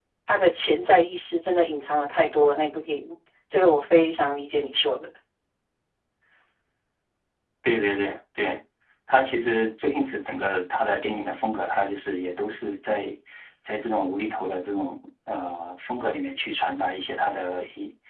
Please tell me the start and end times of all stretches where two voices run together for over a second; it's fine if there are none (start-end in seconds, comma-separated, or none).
none